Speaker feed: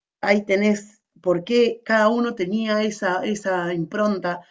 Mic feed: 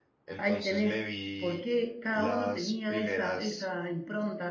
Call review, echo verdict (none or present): present